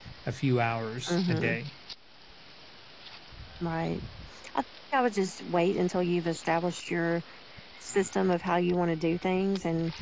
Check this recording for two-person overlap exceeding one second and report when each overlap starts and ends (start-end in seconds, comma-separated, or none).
none